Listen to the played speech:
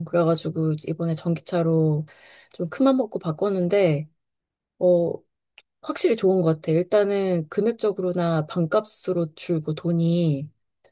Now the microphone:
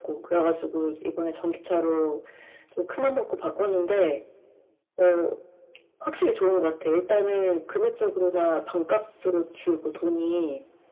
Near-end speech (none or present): none